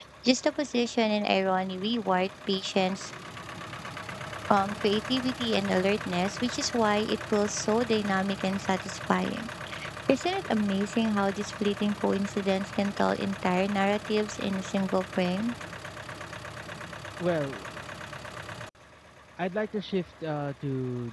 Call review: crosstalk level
none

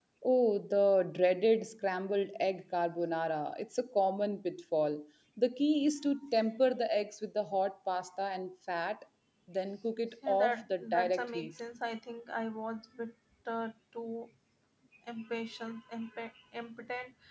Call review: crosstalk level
present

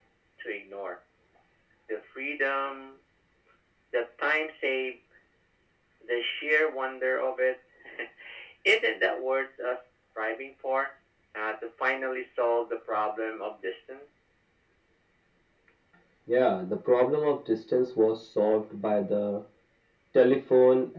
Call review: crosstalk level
none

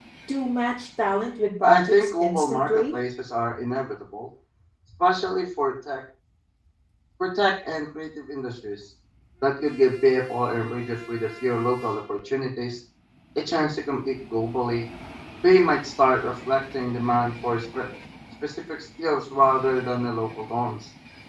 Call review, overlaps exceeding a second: present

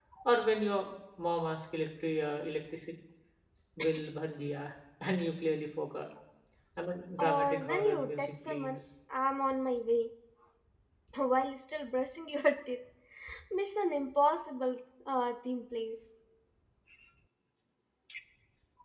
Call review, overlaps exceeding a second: present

